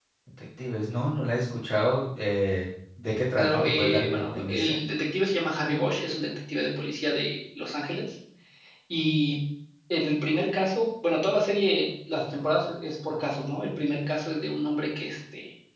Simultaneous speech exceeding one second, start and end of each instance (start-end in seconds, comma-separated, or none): 3.4-4.7